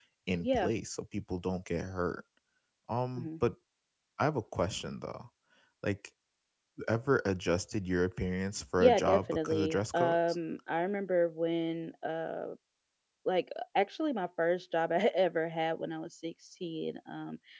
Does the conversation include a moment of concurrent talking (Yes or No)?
Yes